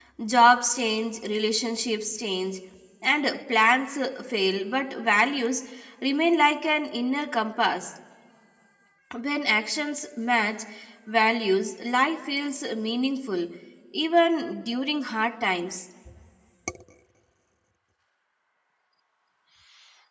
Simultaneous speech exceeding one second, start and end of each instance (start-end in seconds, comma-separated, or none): none